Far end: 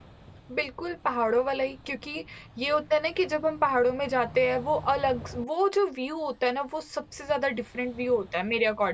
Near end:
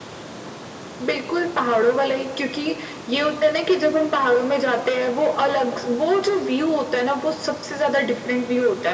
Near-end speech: none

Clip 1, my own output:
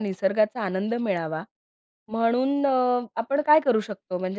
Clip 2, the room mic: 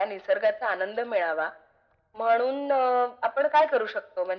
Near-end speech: none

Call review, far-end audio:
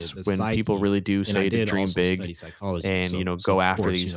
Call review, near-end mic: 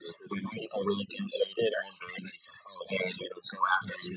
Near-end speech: none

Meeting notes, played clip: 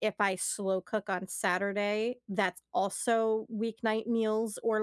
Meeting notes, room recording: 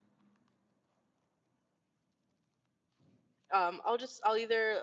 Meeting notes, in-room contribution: present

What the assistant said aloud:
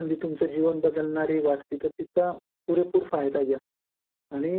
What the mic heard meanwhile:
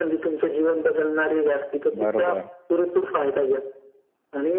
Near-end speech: present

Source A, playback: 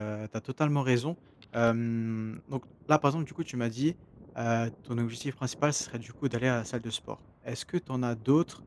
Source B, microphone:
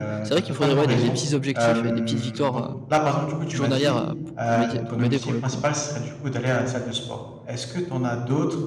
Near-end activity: present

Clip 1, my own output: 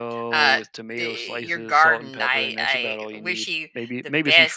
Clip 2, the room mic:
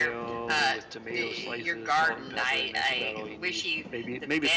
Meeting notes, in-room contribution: none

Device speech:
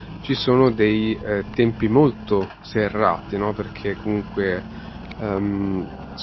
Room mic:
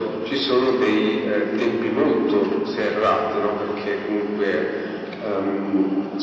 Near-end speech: none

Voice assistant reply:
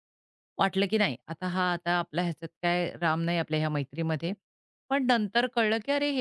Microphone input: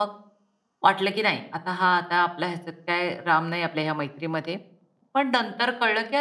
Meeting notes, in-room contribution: none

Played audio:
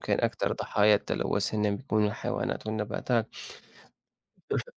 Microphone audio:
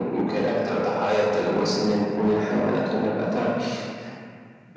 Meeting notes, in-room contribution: none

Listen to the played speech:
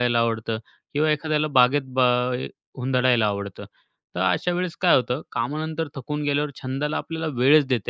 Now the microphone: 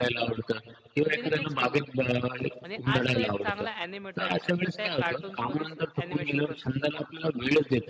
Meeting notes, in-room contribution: present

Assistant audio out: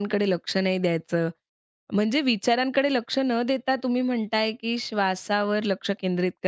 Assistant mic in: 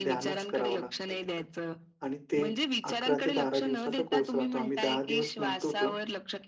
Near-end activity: present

